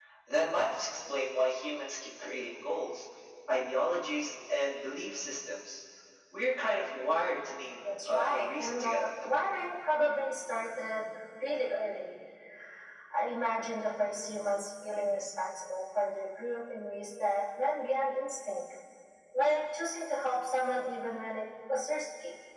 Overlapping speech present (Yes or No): Yes